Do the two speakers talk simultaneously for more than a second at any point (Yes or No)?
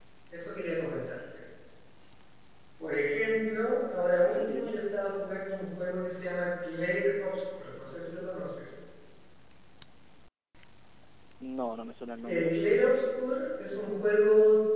No